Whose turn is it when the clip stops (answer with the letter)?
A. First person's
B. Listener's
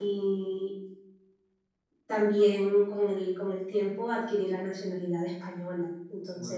A